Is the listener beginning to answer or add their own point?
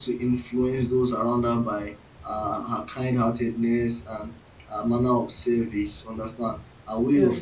No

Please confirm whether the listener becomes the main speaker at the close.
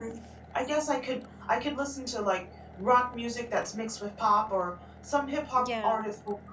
No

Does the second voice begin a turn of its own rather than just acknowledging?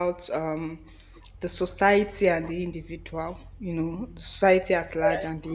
No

